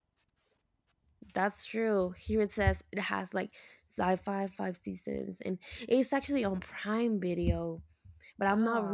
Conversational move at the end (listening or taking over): listening